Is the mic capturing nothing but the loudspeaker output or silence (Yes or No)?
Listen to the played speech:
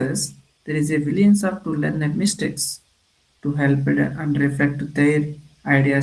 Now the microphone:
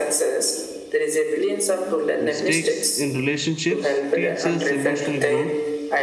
No